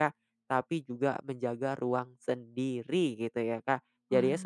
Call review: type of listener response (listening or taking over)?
listening